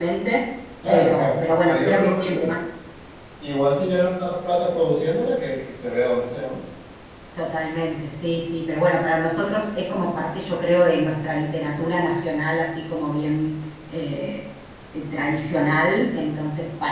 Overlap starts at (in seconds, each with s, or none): 0.9 s